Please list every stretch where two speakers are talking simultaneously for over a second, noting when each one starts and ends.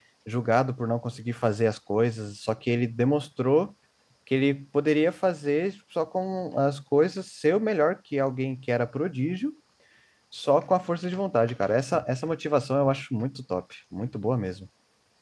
none

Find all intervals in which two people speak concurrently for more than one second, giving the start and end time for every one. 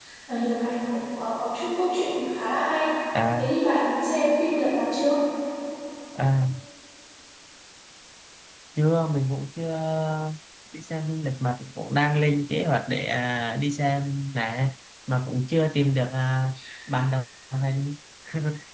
none

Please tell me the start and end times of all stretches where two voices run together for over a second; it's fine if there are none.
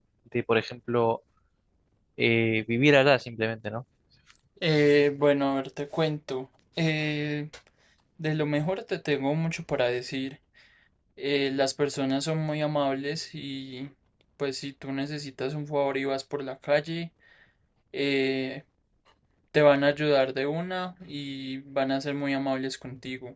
none

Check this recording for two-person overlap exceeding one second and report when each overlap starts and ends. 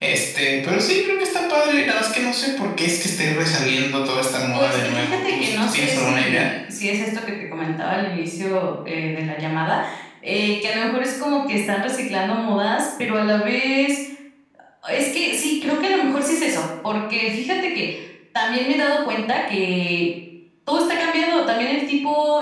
4.5-6.5

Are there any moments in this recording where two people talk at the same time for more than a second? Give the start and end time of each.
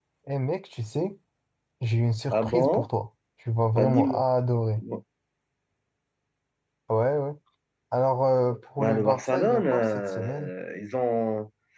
8.8-10.5

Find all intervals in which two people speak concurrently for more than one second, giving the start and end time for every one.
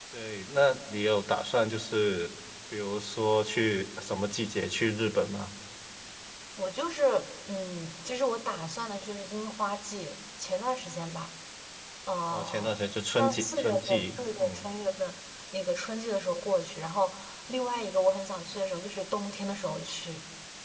13.2-14.7

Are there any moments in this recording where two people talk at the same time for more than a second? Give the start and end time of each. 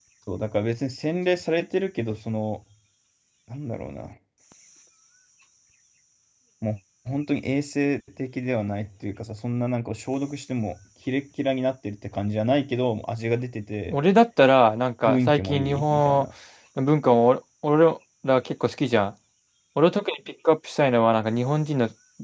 15.1-16.2

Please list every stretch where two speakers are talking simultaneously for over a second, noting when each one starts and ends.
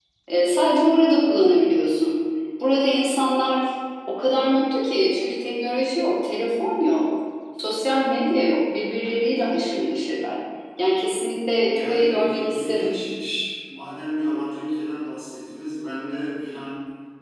11.6-12.9

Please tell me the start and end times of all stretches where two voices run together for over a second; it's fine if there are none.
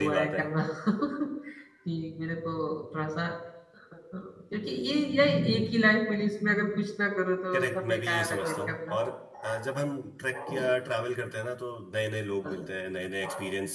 7.5-8.9

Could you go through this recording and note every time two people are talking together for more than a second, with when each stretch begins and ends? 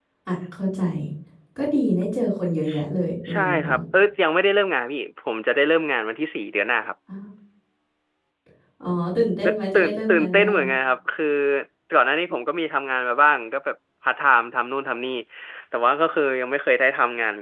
9.4-10.7

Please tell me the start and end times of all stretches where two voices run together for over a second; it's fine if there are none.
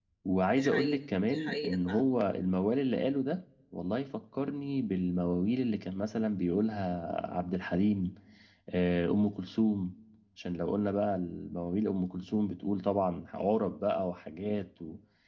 0.6-2.1

